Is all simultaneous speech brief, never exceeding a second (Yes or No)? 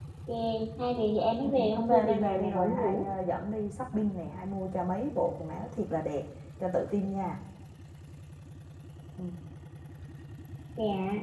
No